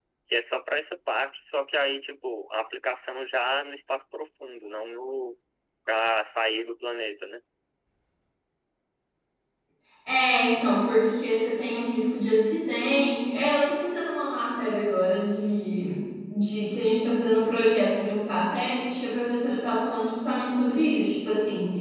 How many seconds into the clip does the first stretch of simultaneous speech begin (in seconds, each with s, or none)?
none